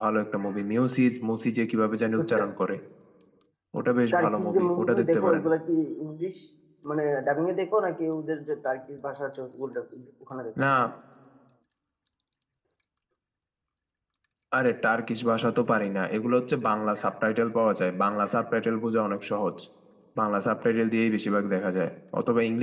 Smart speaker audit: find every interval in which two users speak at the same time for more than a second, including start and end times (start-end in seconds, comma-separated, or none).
4.1-5.4